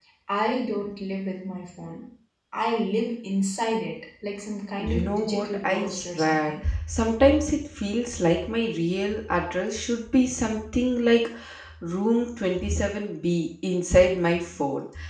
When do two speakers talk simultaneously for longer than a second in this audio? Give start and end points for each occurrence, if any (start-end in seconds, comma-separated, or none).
4.8-6.5